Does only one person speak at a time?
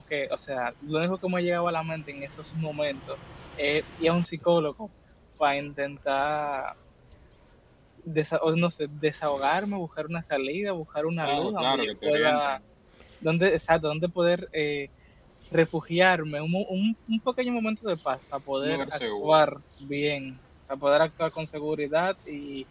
No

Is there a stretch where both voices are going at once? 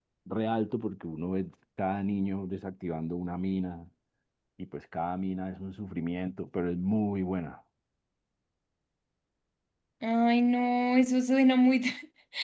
No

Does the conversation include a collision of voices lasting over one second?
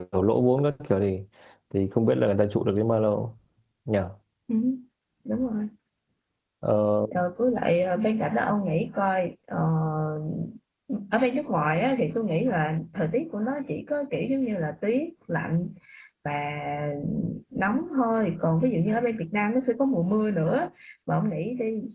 No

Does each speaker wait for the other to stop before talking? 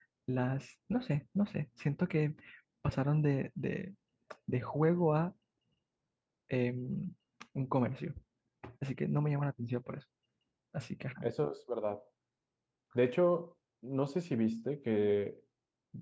Yes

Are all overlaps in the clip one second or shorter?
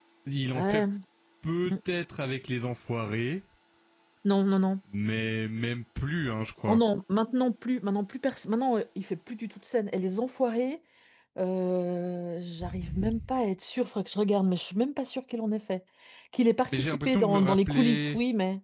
No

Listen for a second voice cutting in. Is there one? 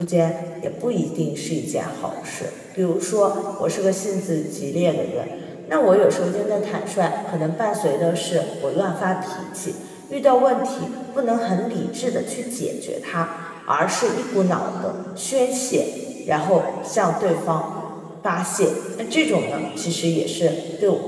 No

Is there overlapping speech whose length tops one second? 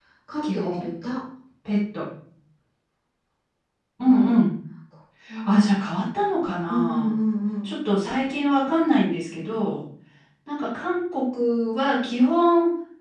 No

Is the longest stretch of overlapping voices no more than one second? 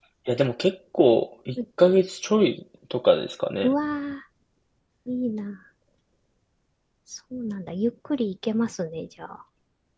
Yes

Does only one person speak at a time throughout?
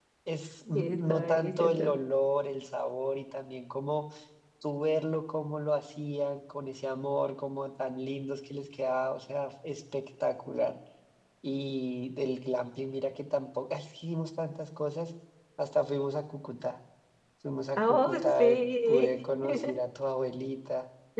No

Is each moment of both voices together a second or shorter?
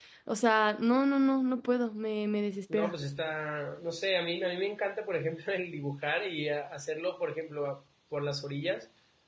Yes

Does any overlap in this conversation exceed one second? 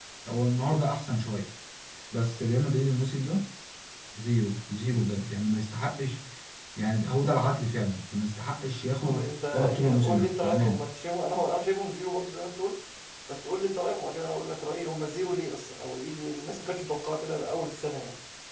Yes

